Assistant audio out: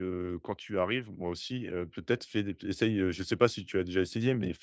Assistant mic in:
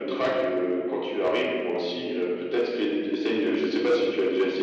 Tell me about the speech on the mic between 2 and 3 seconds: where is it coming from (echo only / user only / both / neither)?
echo only